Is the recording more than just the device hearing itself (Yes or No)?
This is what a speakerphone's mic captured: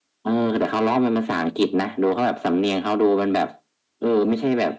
No